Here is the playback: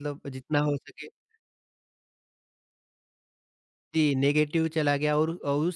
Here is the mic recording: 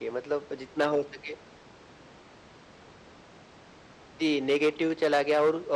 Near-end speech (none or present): none